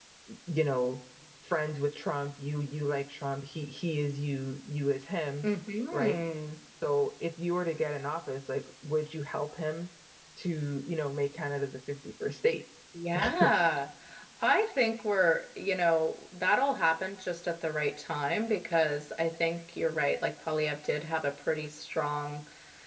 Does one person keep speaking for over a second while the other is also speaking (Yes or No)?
No